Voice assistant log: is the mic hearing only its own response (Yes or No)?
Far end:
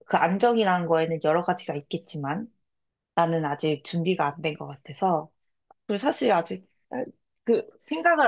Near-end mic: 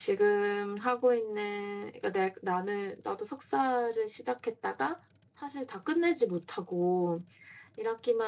No